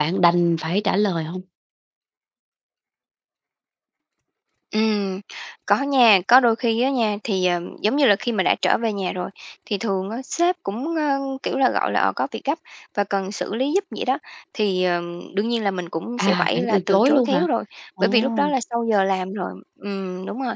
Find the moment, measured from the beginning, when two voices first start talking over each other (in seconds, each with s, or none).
16.2 s